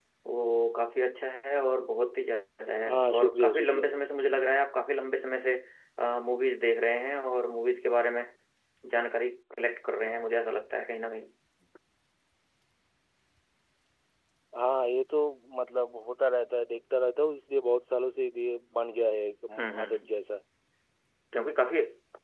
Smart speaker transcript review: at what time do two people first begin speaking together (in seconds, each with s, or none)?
2.9 s